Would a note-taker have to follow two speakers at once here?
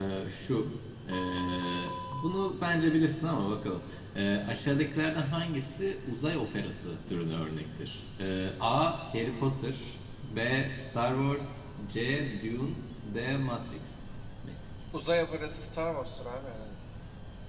No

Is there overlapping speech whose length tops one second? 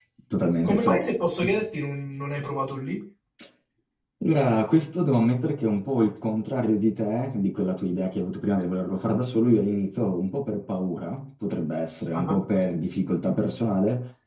No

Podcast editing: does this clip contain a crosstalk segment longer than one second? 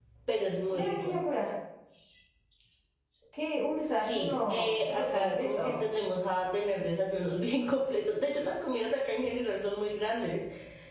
Yes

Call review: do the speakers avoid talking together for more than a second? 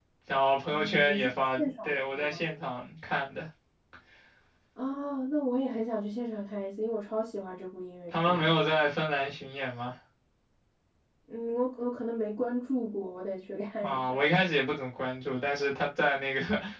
No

